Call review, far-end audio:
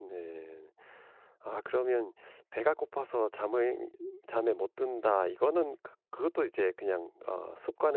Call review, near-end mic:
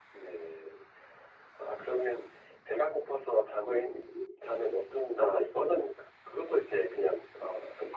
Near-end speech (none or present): none